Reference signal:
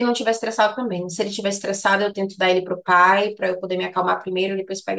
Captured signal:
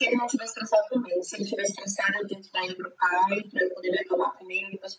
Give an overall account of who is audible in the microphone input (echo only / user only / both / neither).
echo only